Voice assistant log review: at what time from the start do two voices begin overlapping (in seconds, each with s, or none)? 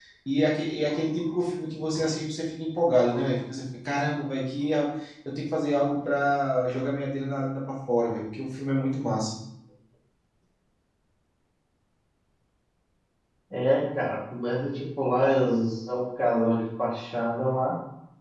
none